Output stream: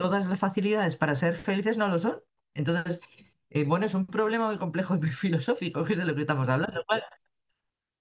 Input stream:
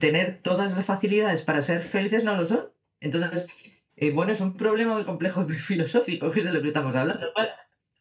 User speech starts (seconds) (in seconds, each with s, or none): none